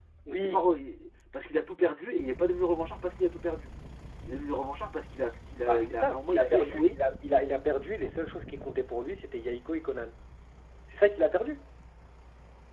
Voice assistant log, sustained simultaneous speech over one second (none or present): present